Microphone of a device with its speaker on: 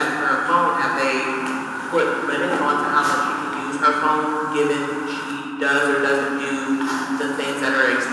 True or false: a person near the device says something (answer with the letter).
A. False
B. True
A